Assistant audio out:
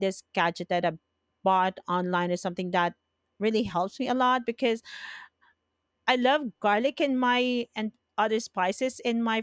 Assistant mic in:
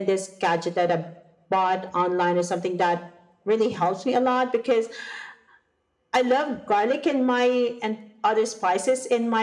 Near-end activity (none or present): none